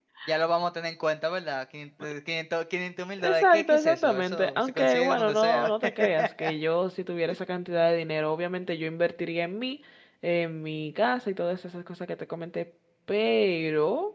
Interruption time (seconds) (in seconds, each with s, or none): 3.2 s